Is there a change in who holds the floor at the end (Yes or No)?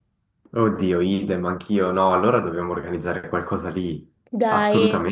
Yes